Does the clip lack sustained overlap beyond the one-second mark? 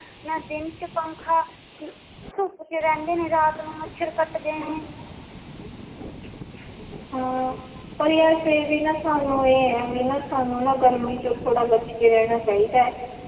Yes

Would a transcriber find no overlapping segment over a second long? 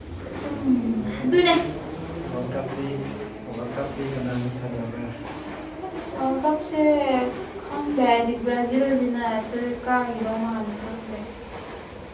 Yes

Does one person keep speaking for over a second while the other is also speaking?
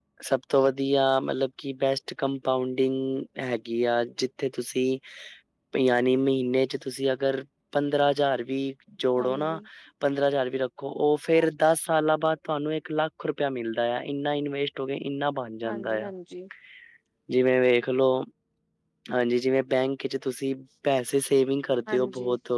No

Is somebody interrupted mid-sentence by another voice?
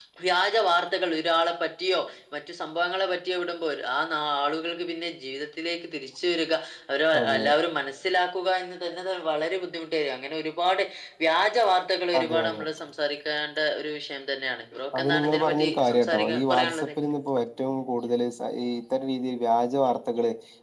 Yes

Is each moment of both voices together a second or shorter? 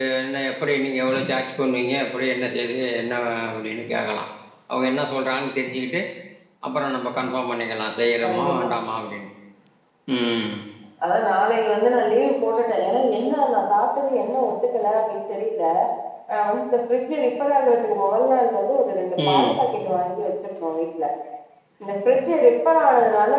Yes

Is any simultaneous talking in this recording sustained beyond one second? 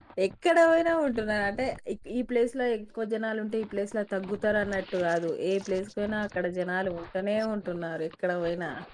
No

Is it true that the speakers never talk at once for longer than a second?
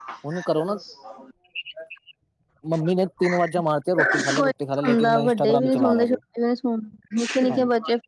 No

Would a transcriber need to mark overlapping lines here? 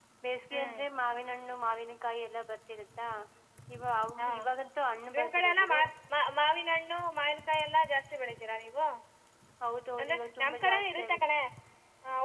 Yes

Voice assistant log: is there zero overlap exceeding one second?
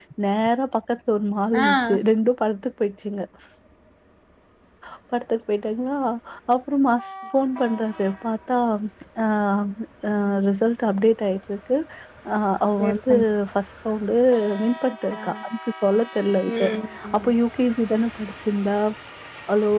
Yes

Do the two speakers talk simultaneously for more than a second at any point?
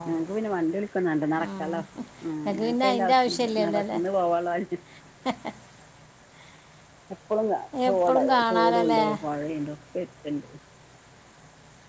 Yes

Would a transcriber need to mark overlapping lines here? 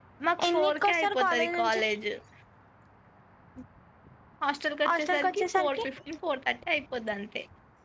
Yes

